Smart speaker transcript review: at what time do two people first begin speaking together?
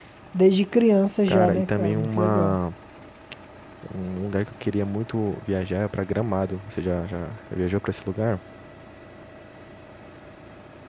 1.3 s

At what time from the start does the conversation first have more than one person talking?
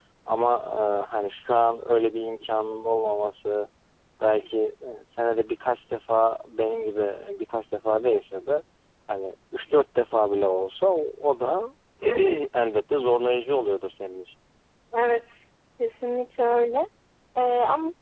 none

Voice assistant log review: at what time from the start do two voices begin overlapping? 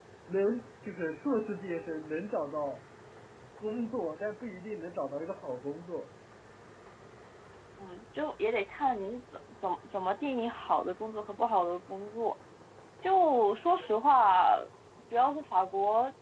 none

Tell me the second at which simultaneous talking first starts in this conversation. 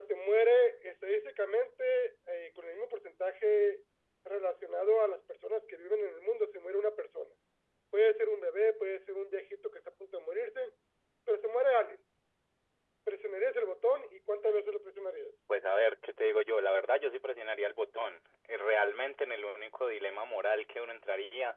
none

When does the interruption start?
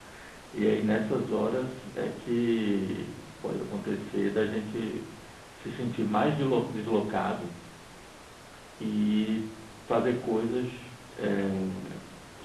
none

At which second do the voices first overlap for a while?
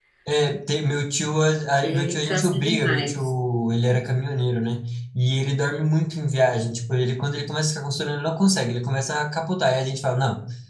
1.8 s

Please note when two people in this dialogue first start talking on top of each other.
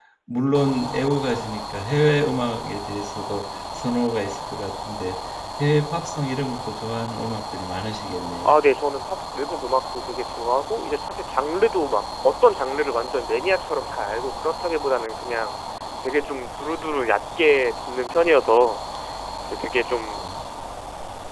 none

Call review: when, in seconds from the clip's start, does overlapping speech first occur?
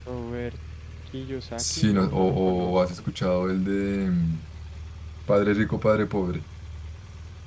1.6 s

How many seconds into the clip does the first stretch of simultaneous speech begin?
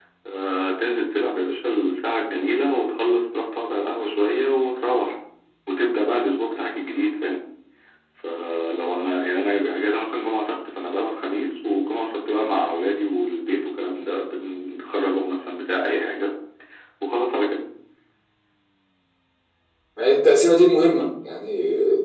none

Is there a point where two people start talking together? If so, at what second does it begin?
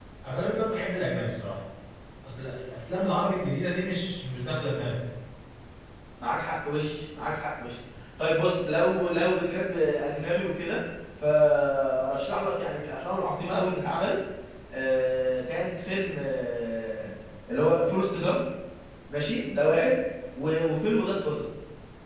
none

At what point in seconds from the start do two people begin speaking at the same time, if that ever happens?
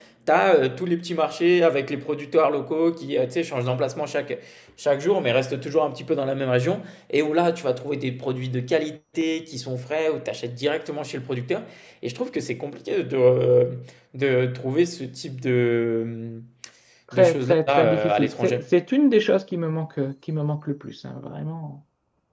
17.1 s

